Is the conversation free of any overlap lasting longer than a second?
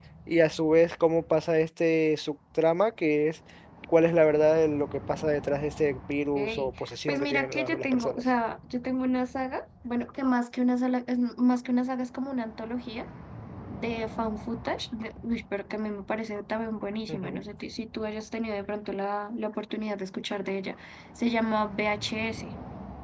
No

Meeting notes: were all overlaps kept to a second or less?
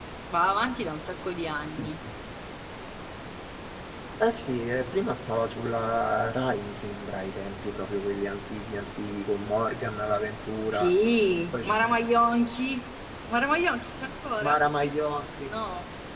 Yes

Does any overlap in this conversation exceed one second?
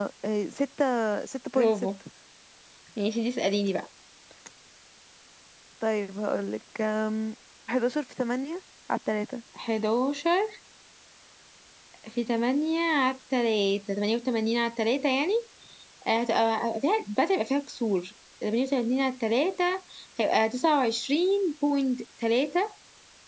No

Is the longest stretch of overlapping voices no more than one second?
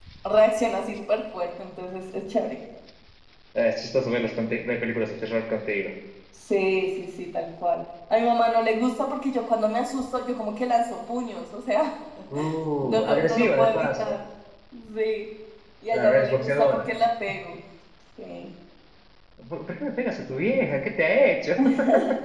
No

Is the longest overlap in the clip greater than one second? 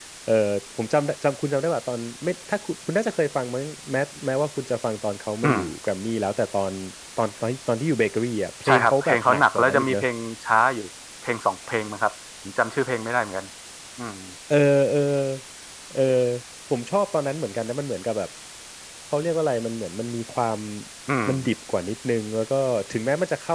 Yes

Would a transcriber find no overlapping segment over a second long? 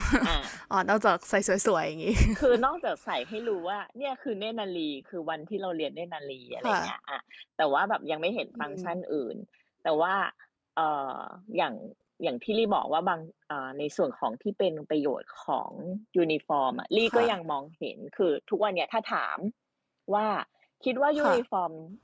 Yes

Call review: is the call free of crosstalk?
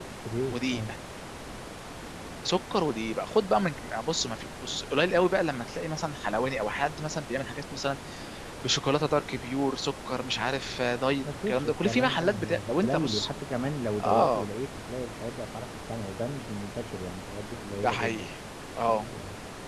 No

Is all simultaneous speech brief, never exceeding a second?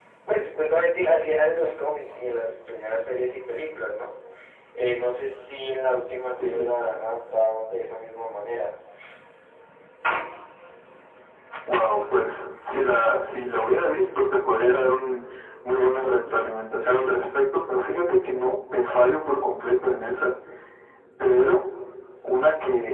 Yes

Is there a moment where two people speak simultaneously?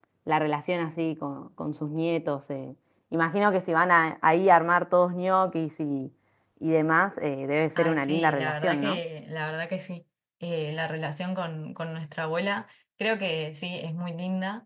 Yes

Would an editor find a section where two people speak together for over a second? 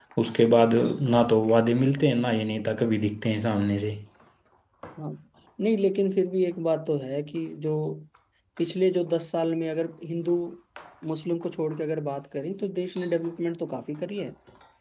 No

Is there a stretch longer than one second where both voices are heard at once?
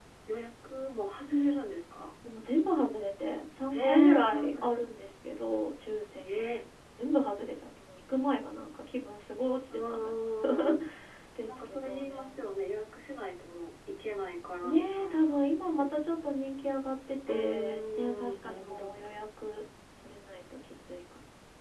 Yes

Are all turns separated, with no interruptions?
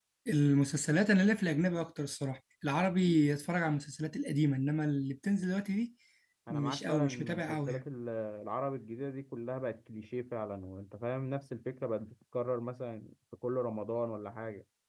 No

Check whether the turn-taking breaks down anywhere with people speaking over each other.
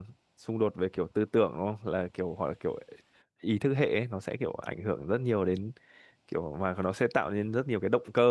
No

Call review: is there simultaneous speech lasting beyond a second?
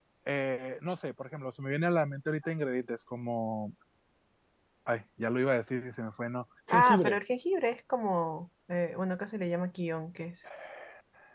No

